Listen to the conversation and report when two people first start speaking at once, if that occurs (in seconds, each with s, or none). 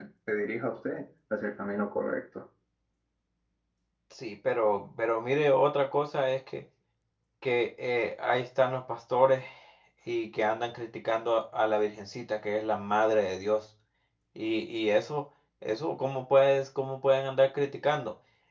none